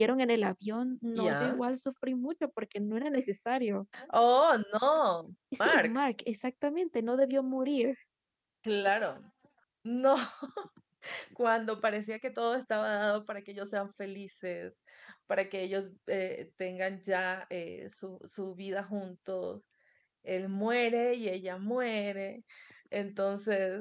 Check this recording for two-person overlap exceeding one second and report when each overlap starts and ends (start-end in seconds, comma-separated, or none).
none